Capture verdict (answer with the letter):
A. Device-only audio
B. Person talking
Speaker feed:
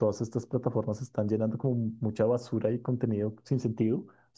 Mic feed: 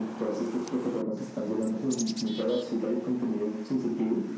A